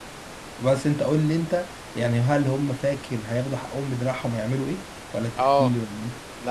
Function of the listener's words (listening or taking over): taking over